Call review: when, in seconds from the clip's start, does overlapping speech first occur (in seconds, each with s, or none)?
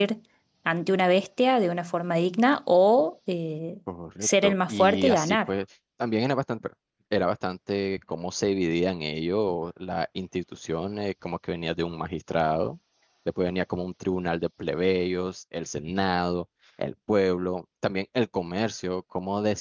4.2 s